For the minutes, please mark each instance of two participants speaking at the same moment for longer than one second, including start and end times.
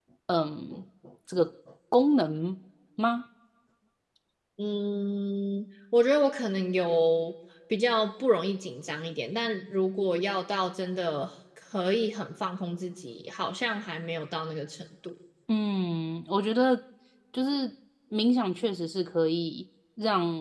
none

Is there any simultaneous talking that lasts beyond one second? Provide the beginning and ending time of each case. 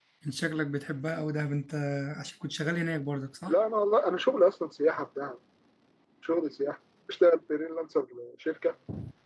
none

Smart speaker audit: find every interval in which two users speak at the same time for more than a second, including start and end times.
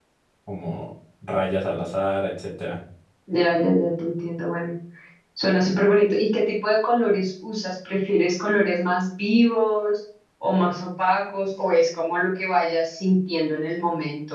none

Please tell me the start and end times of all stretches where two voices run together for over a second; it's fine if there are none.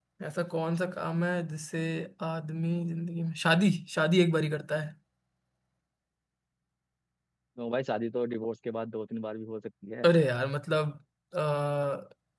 none

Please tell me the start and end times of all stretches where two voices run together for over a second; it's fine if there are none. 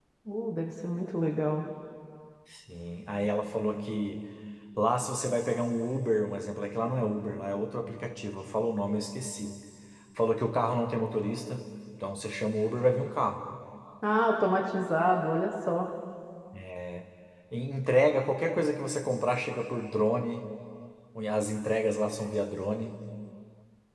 none

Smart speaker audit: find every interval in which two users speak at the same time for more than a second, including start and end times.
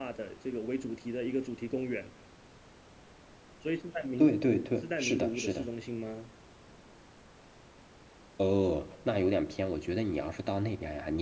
4.2-5.7

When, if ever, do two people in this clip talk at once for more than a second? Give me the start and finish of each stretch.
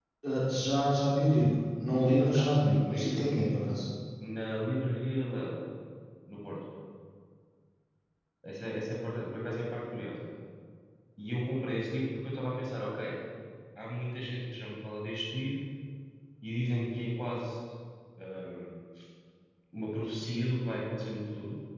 2.0-3.8

